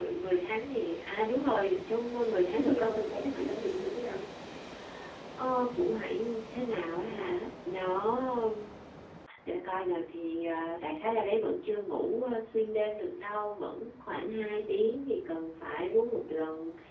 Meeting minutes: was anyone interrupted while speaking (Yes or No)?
Yes